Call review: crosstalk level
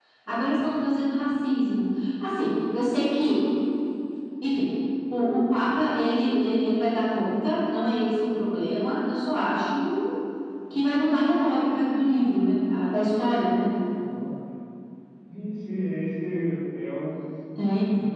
none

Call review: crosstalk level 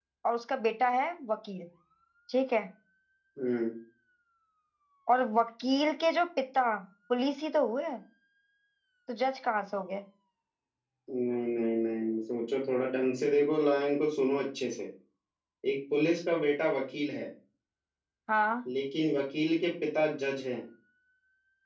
none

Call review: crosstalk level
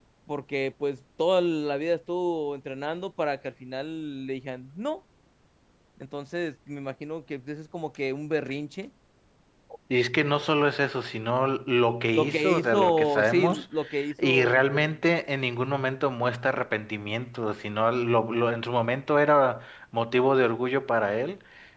present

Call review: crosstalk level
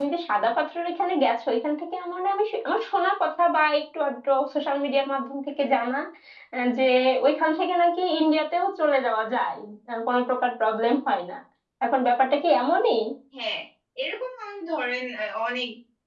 none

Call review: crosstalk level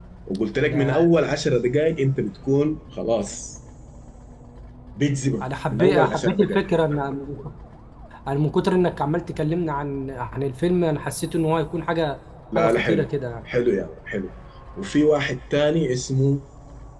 present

